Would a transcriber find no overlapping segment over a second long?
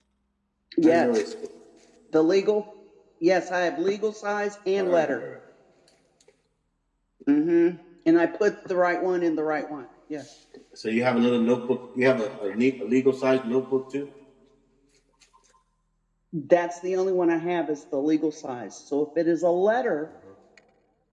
Yes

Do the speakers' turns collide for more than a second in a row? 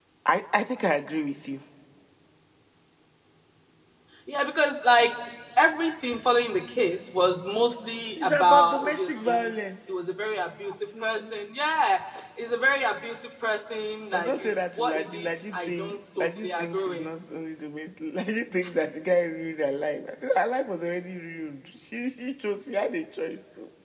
Yes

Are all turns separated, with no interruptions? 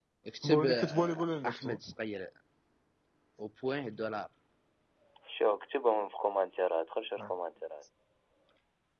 No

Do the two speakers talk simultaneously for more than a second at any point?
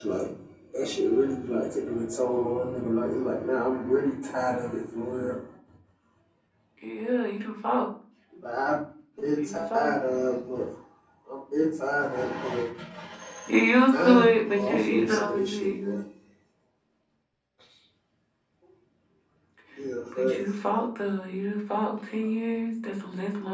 Yes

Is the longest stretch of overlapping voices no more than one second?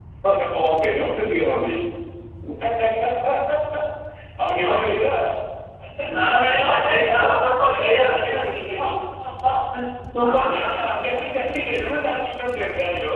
Yes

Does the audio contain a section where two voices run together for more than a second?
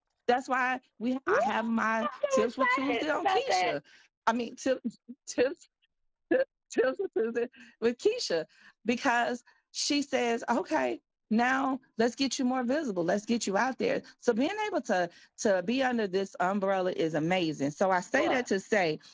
Yes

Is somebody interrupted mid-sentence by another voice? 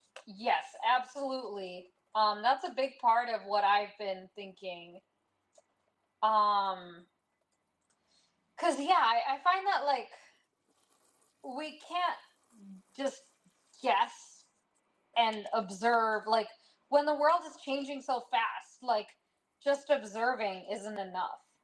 No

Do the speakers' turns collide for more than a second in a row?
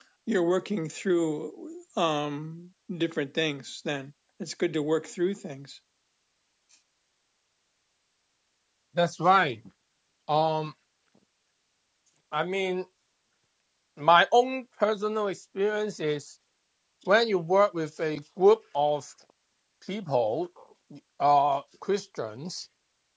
No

